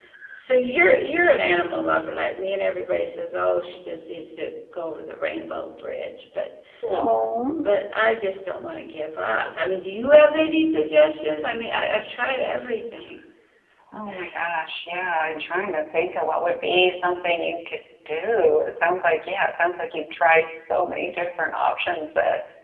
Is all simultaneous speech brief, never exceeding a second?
Yes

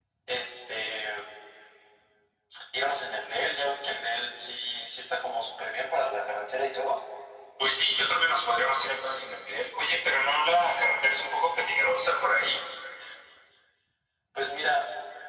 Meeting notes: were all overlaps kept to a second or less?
Yes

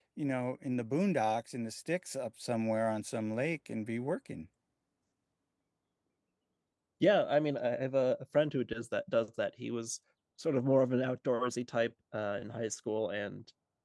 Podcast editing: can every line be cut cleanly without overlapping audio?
Yes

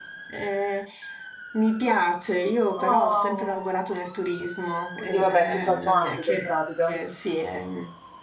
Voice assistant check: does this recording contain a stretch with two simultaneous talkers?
Yes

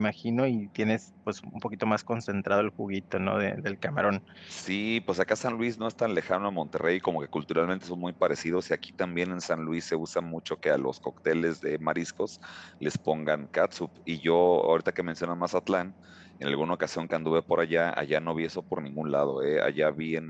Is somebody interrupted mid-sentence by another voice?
No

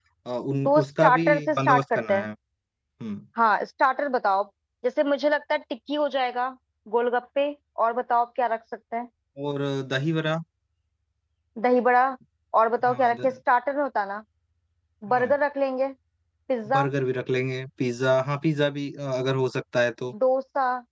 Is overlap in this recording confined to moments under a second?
No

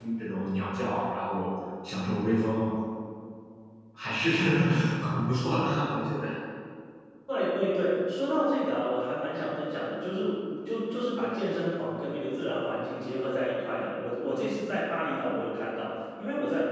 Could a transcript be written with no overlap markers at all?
Yes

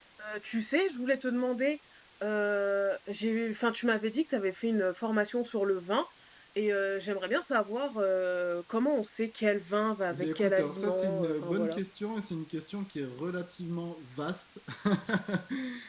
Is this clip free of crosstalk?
No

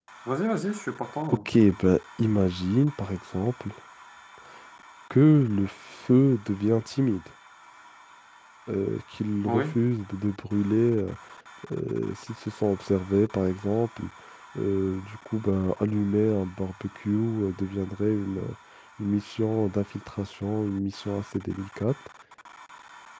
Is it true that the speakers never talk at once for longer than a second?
Yes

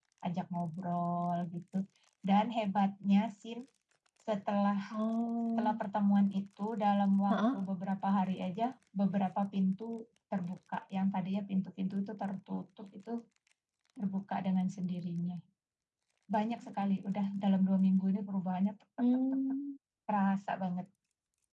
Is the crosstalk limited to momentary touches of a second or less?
Yes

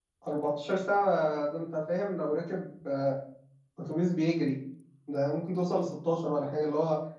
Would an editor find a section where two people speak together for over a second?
No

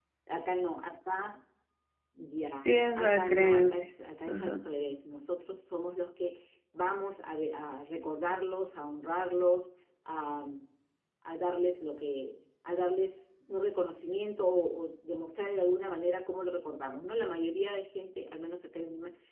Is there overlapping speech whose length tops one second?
Yes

